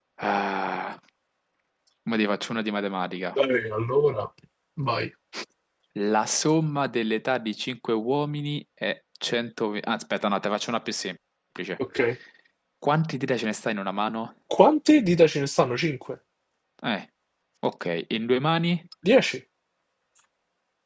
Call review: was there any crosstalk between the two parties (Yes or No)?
No